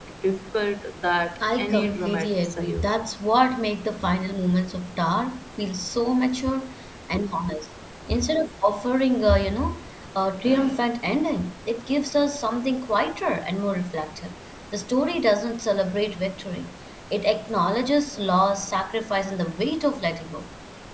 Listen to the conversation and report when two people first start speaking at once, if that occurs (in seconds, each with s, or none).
1.4 s